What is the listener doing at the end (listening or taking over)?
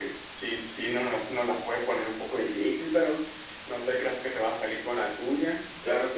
taking over